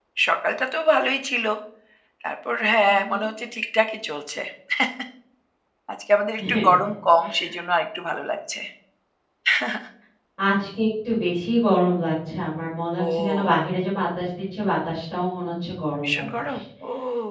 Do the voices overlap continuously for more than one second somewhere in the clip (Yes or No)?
No